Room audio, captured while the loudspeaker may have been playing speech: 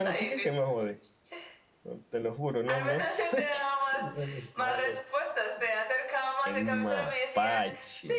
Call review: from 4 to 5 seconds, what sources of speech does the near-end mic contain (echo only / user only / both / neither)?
both